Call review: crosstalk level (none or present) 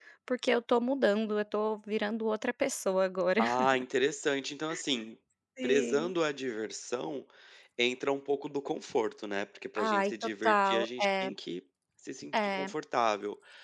present